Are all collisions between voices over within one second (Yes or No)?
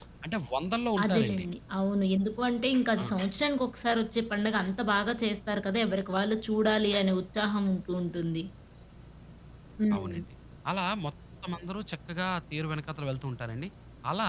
Yes